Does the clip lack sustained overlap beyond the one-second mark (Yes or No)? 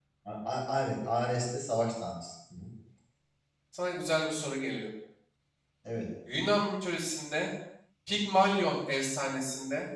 Yes